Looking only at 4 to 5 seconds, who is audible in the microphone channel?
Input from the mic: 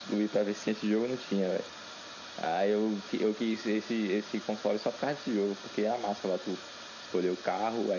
echo only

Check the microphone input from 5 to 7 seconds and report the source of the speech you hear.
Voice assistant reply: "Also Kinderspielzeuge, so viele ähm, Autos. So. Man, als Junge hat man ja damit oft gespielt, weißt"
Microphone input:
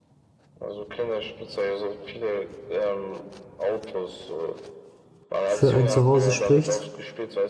both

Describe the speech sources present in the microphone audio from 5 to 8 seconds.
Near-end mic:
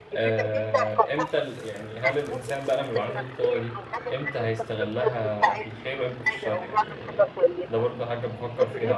both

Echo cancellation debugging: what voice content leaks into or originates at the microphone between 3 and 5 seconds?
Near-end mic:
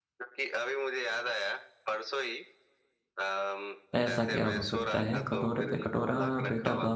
both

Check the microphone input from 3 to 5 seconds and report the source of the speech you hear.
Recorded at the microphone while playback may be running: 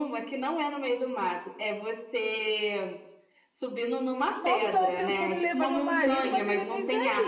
both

